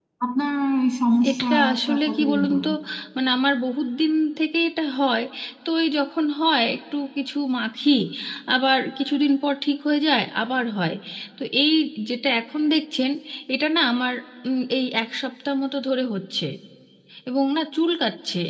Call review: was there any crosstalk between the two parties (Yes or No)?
Yes